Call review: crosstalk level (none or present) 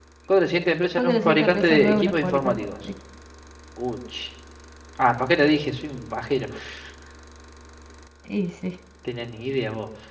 present